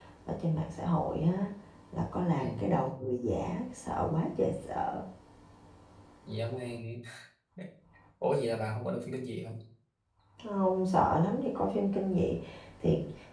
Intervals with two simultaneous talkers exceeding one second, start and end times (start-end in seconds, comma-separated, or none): none